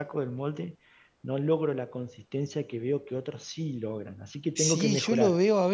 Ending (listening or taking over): taking over